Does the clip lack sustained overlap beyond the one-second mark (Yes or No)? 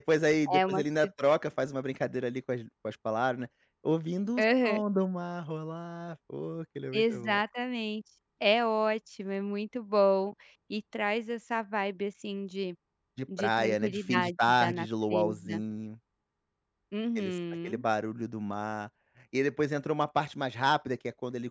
No